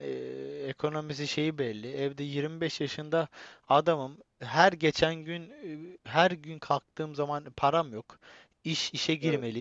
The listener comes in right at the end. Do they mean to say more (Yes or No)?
No